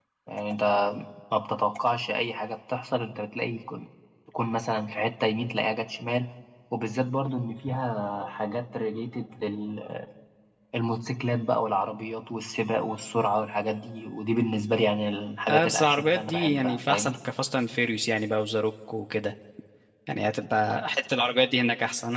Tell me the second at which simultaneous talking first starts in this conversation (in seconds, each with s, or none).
15.5 s